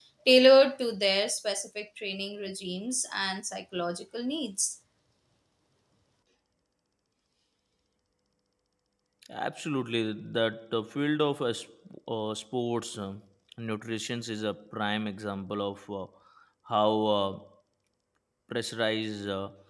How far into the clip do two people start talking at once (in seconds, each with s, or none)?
none